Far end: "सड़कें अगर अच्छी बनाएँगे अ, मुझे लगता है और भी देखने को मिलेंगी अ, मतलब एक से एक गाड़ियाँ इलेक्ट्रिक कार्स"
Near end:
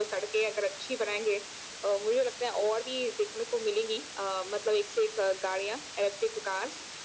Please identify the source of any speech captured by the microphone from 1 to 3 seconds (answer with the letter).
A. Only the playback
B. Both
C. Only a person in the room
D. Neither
A